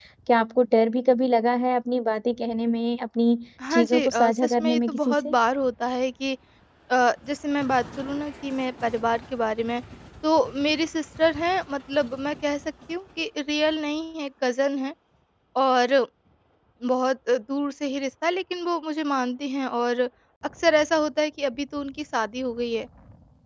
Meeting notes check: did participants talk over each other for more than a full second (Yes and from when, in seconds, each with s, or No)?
Yes, from 3.6 s